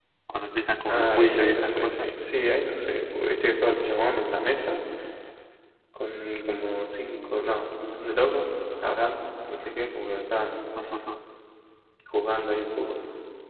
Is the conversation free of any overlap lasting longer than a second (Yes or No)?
No